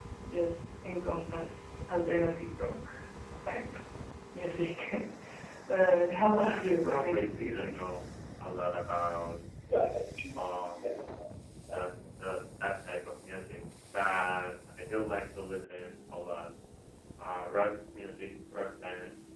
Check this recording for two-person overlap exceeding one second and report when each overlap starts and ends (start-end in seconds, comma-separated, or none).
6.4-7.7